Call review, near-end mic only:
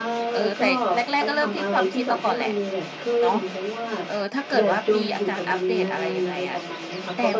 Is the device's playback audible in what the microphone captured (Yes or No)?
Yes